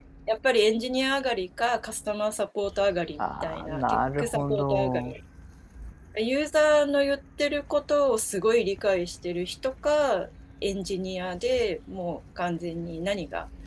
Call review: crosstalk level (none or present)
present